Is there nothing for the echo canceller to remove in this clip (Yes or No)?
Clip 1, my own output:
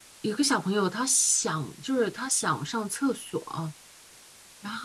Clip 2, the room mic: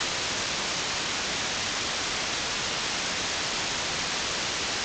Yes